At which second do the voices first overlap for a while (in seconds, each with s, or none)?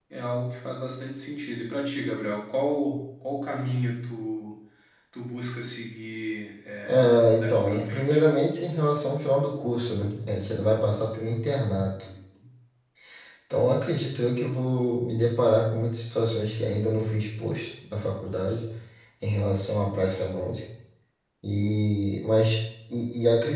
6.8 s